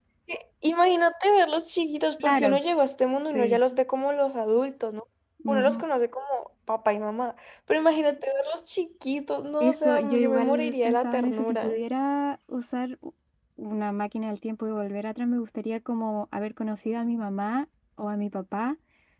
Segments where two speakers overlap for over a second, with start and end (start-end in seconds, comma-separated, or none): 9.6-11.8